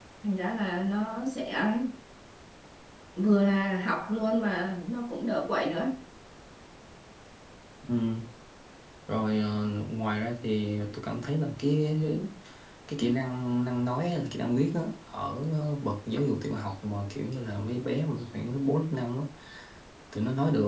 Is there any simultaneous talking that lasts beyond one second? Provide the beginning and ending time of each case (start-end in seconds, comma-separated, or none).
none